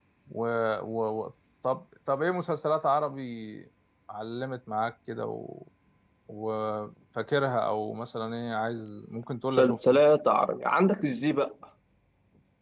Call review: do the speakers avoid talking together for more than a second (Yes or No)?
Yes